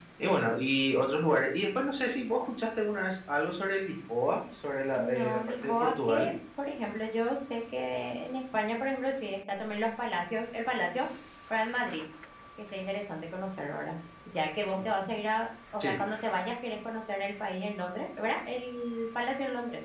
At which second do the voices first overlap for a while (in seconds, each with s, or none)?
5.0 s